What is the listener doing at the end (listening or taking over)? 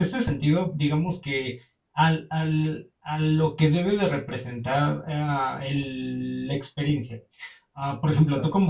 listening